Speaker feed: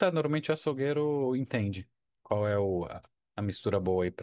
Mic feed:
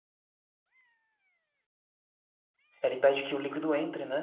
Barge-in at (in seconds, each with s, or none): 2.8 s